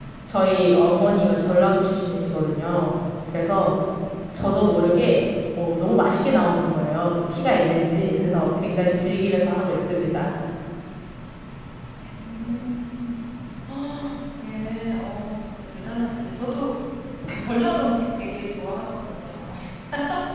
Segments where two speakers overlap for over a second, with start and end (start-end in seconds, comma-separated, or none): none